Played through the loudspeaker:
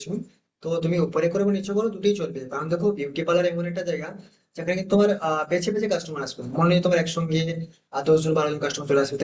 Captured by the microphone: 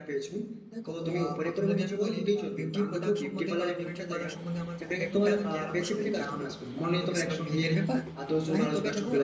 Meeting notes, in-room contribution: present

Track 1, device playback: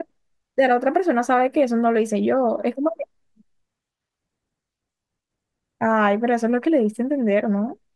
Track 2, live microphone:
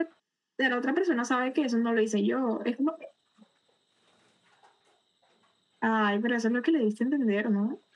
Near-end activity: none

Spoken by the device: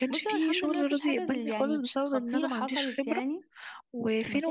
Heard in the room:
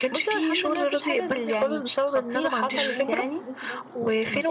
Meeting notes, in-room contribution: present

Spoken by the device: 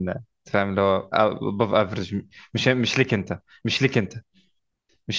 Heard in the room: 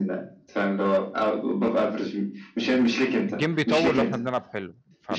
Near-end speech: present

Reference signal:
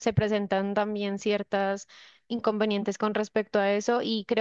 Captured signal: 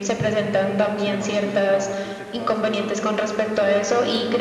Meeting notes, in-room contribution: present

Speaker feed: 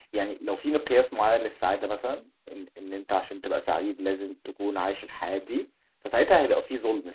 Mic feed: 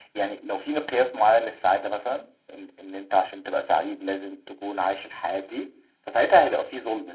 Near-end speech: none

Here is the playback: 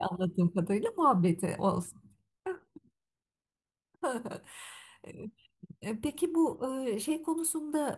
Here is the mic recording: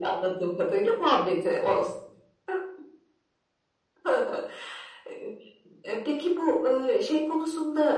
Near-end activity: none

